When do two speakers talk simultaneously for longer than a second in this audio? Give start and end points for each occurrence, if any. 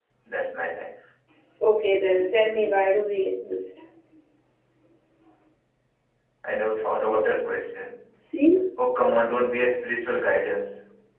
none

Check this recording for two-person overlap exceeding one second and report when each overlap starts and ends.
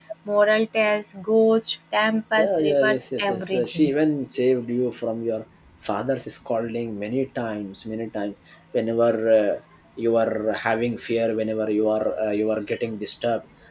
2.4-3.9

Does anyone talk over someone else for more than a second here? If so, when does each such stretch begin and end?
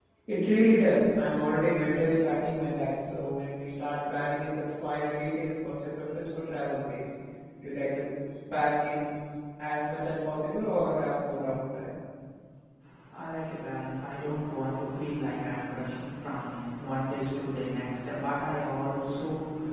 none

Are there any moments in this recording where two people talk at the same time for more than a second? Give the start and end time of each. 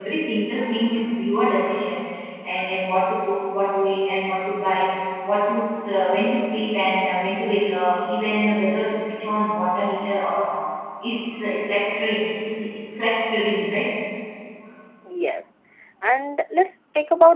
none

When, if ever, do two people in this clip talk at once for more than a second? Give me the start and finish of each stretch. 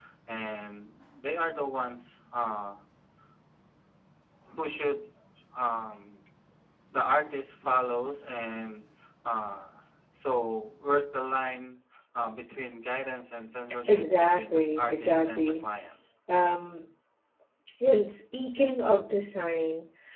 13.9-15.7

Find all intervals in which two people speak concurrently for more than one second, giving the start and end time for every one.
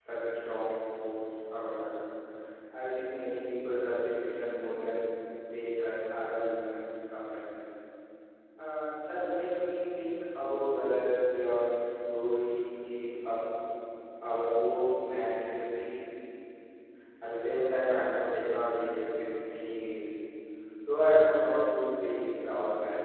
none

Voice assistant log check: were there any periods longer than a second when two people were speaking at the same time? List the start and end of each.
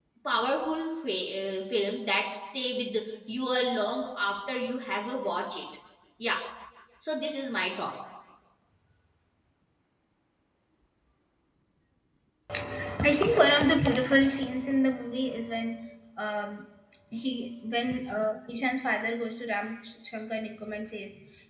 none

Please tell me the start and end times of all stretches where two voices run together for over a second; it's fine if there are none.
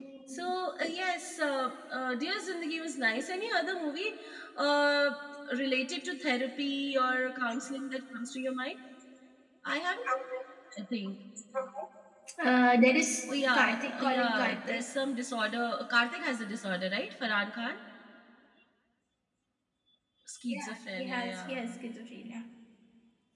13.5-14.9, 20.5-21.8

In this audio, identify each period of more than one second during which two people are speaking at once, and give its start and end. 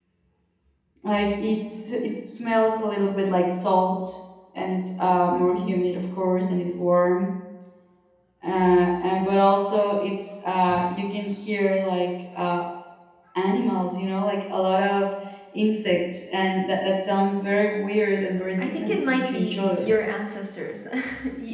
18.6-19.9

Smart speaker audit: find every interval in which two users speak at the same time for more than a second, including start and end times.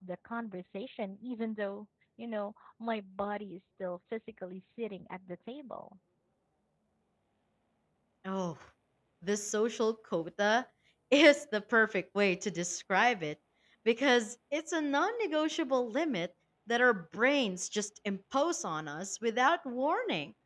none

